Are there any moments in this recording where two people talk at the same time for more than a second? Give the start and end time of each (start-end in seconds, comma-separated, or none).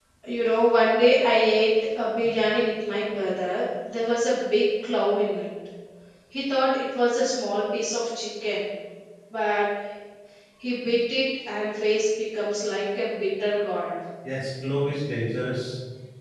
none